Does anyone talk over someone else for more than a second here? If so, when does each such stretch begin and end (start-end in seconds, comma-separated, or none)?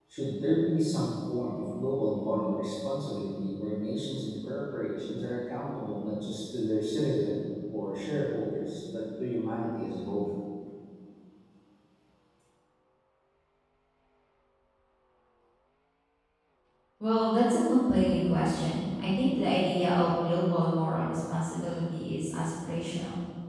none